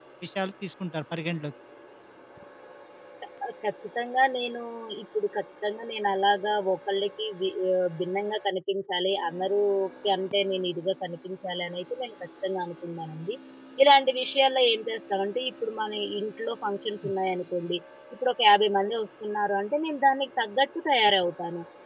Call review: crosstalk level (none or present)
none